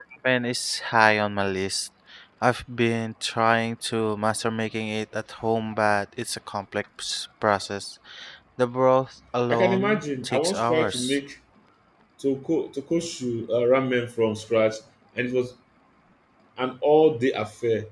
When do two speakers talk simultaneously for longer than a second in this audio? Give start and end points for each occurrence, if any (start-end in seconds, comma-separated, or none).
9.5-11.2